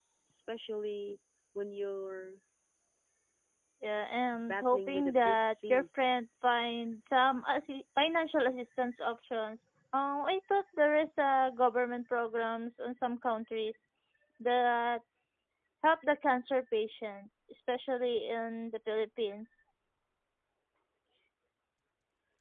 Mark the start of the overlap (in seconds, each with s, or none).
4.5 s